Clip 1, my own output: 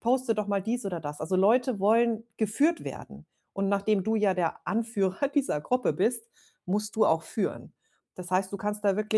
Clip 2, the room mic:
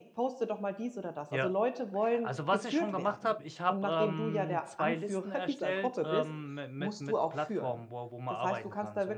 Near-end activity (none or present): present